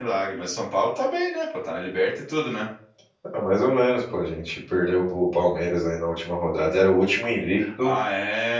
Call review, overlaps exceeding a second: none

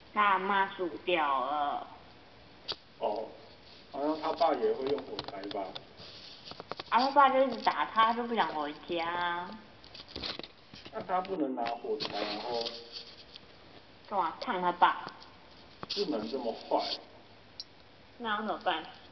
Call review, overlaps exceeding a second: none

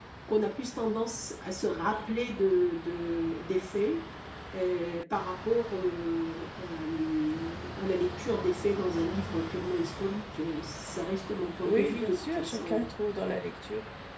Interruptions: present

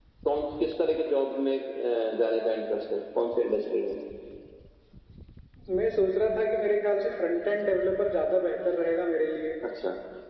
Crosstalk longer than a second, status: none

